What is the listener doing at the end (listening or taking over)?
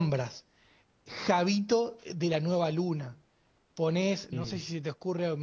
listening